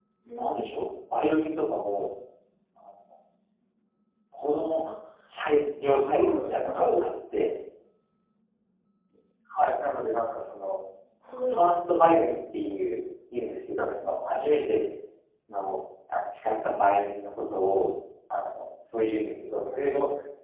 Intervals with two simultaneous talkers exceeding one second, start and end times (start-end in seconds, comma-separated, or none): 5.8-7.0